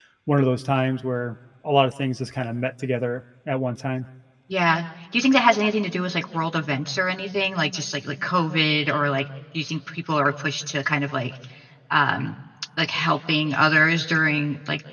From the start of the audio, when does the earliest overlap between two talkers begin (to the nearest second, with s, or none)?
none